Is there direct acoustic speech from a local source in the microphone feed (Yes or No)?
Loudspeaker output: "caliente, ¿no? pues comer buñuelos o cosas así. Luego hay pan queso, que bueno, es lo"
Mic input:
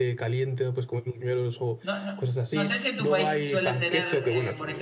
Yes